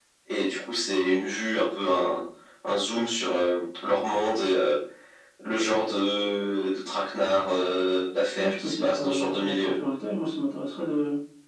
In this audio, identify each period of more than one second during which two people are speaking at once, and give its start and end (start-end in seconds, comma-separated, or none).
8.4-9.7